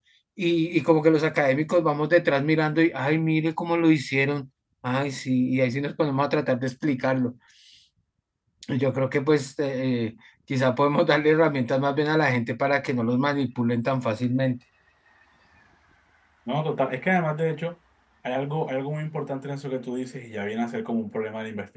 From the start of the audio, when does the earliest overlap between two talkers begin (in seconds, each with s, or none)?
none